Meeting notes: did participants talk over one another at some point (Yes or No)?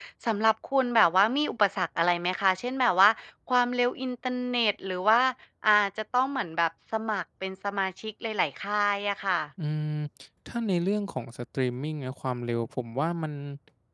No